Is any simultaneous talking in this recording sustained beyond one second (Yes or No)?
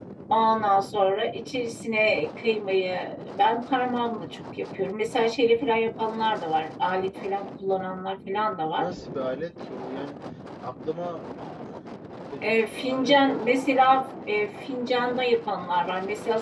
Yes